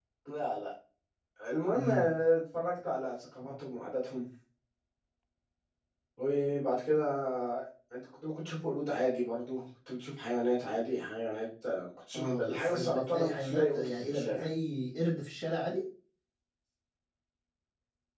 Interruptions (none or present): present